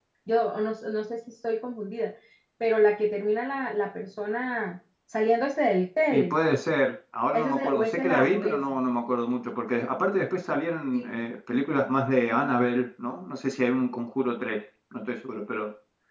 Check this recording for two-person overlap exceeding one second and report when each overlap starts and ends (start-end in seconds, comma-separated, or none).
7.3-8.6